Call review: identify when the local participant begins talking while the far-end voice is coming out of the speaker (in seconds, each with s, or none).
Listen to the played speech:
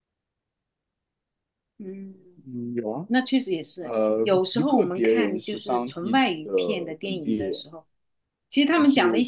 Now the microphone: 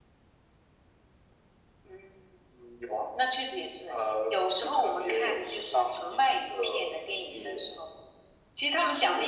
none